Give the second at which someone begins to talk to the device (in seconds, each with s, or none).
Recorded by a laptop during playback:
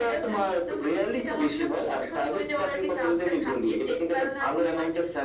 none